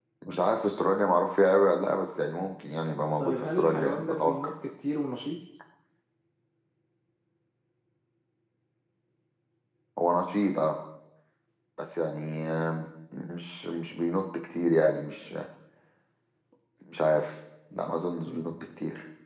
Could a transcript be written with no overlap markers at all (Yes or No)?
No